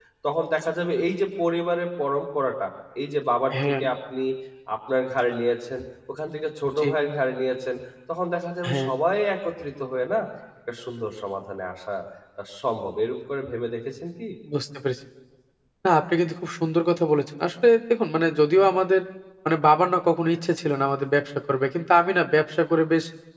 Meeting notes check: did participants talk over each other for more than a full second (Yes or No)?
No